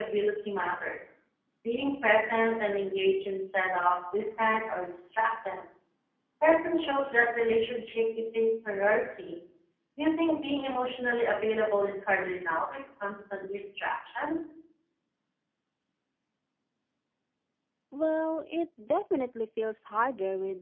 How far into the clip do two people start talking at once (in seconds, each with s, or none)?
none